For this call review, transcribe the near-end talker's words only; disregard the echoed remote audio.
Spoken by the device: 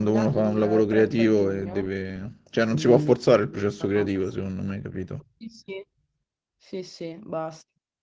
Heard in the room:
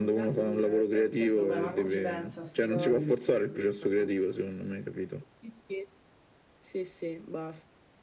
Uno poi manco ci pensa a queste cose perché

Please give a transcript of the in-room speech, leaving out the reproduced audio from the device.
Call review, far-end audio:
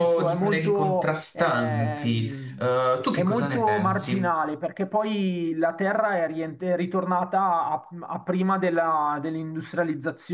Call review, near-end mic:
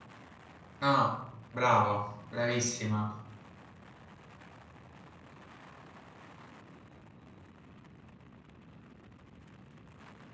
Ah, bravo, bravissima.

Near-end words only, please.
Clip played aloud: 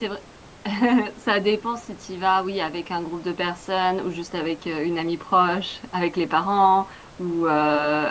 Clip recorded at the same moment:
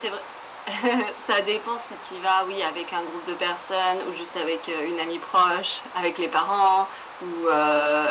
none

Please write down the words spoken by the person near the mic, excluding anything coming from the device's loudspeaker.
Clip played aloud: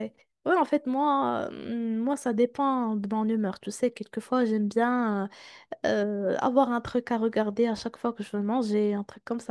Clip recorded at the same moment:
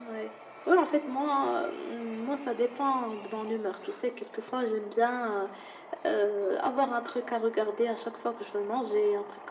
none

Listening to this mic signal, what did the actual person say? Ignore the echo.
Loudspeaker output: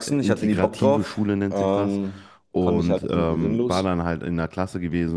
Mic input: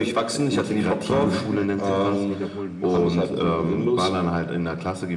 logisch gesehen nicht wiederholen müssen,

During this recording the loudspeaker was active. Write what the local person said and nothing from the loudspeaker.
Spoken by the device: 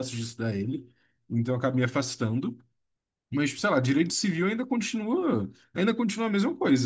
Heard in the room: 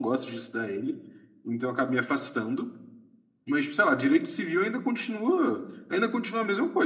none

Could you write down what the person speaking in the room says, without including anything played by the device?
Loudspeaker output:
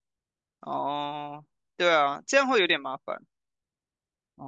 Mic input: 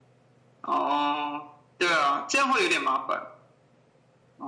none

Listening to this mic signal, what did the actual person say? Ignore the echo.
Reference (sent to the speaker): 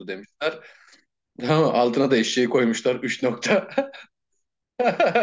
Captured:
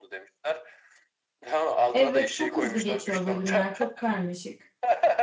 Evet çok hızlı geçiyor bölümler çok karmaşık.

